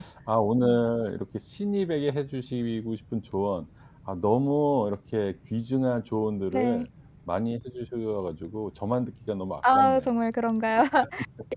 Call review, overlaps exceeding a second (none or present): none